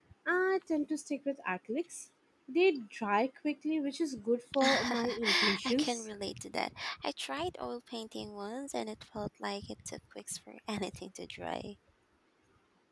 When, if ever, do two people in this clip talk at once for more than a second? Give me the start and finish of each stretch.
4.6-6.1

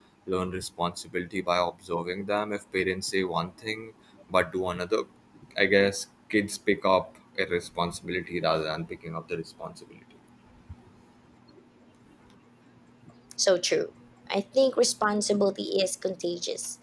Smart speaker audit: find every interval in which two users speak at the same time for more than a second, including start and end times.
none

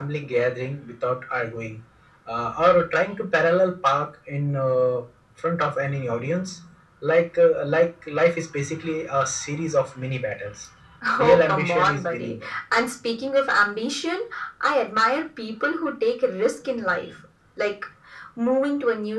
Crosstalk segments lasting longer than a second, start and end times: 11.2-12.5

